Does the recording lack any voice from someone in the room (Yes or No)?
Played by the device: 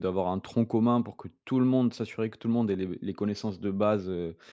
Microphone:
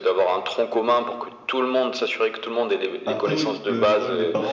No